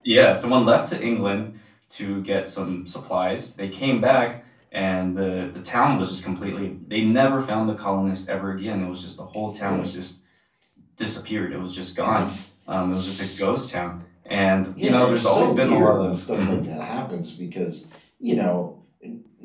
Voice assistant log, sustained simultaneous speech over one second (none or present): present